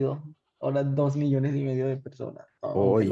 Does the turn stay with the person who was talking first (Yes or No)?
No